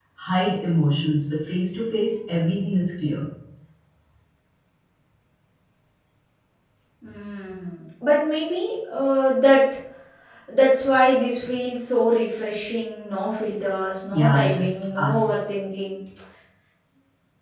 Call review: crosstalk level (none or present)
present